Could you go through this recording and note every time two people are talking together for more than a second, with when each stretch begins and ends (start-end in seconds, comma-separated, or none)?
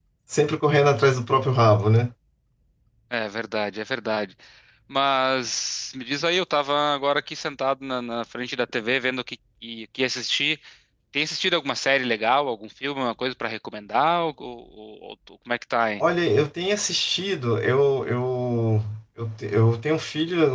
none